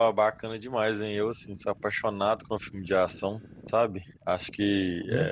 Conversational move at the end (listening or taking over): listening